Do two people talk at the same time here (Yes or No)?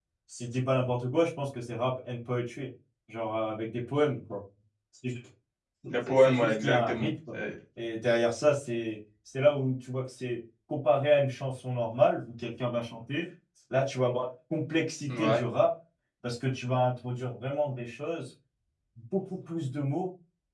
Yes